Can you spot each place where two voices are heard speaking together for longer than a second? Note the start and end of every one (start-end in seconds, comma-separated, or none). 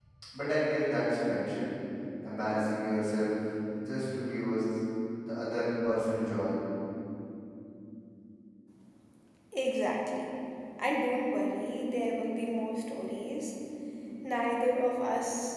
none